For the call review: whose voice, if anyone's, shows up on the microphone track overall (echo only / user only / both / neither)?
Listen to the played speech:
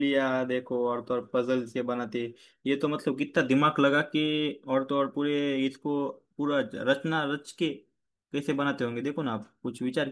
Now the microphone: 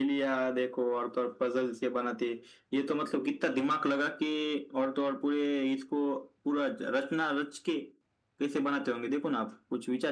echo only